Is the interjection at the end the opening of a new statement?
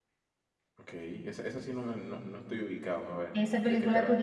Yes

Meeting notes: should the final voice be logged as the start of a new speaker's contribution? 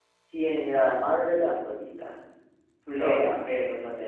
No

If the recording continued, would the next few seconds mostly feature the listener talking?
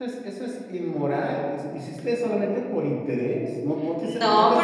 Yes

